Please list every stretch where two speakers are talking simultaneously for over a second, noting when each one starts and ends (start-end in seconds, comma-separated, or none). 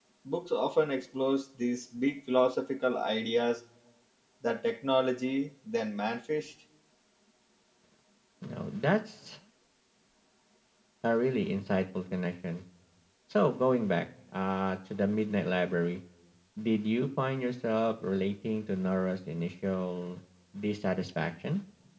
none